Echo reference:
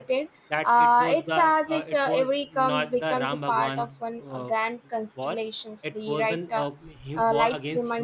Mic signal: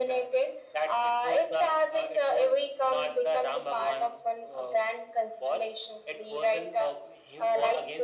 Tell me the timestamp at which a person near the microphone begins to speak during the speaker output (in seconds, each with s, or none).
none